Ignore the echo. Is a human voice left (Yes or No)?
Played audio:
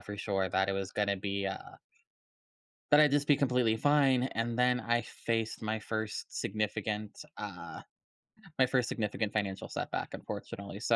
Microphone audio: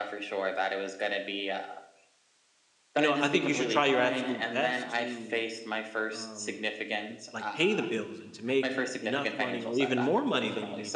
Yes